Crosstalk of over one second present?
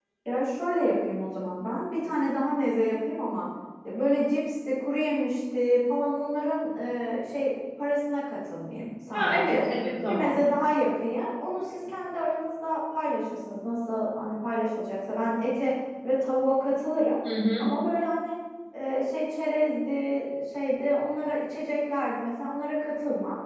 No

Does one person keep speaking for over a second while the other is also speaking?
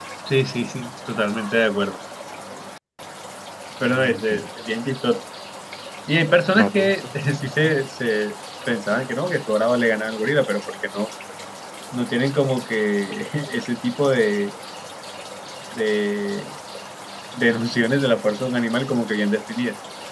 Yes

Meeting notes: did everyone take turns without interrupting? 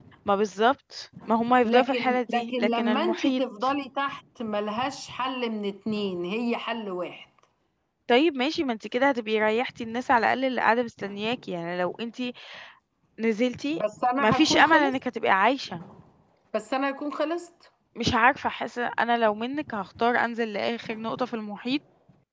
No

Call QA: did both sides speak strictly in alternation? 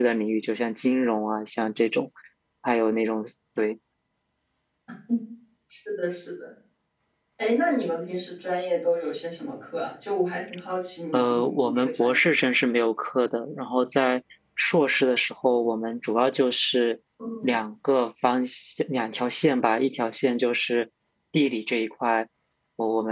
No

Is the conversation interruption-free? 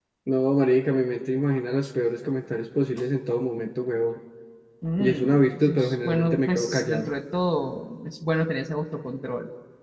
No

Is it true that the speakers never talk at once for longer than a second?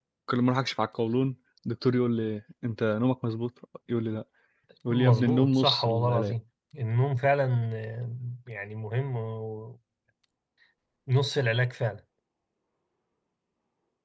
No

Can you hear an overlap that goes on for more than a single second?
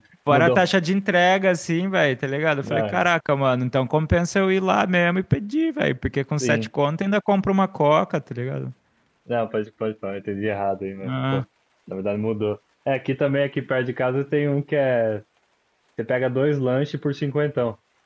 No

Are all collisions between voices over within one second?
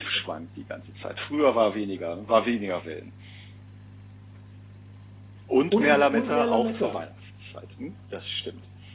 No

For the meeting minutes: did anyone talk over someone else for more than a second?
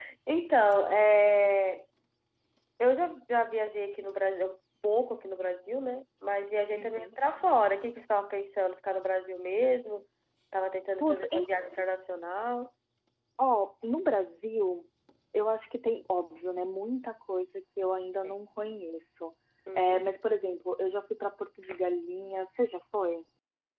No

